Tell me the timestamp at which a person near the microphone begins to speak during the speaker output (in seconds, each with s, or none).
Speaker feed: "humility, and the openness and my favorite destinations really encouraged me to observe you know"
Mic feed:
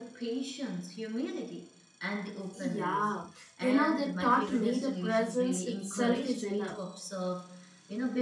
2.5 s